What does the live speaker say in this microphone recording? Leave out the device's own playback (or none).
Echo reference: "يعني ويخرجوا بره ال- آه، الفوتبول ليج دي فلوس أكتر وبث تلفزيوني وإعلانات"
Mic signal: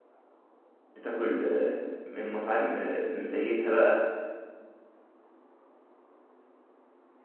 بتاكل آه، من مطاعم آه، مزيتها بقى